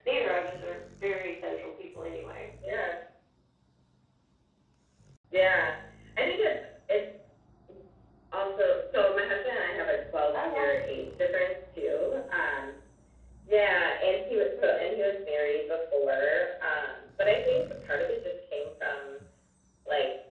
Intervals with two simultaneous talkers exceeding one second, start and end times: none

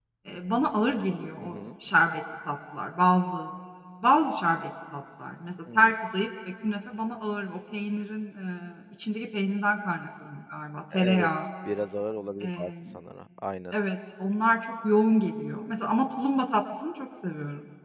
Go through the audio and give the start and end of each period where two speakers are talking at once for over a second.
none

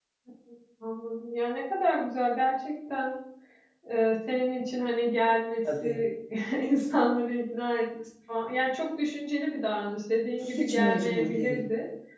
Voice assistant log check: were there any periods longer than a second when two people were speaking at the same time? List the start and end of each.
10.4-11.6

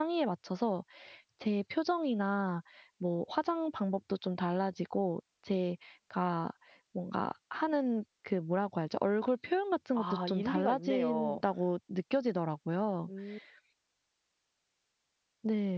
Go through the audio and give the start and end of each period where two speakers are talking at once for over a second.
10.0-11.4

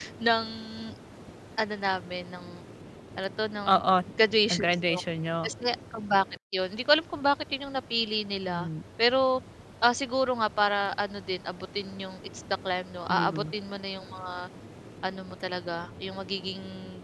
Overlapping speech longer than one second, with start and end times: none

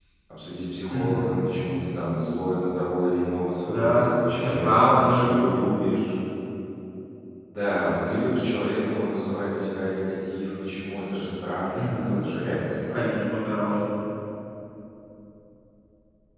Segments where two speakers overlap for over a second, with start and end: 3.6-5.3

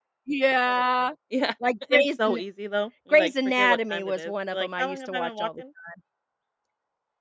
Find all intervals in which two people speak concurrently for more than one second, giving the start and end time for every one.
3.1-5.6

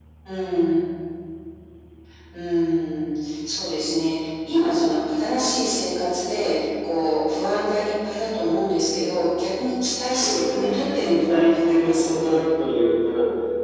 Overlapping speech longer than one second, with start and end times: 10.2-12.4

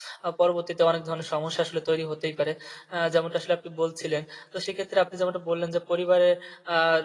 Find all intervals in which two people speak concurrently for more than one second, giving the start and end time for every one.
none

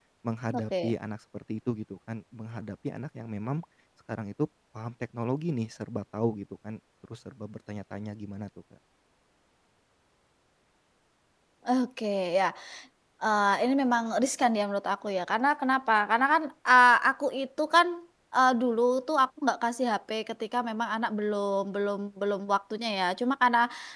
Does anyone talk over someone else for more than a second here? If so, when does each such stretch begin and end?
none

